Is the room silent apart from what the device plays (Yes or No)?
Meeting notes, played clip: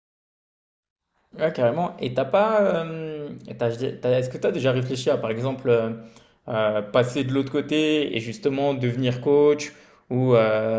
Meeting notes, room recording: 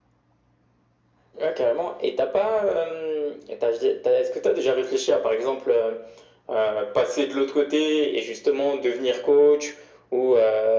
Yes